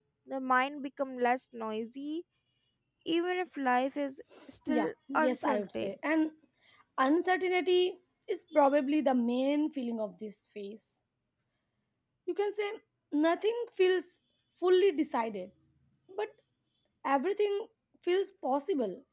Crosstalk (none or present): present